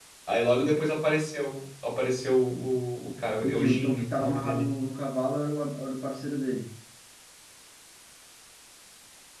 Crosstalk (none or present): present